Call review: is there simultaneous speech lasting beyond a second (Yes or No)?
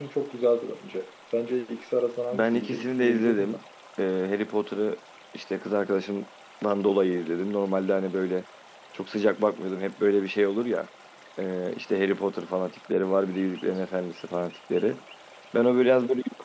Yes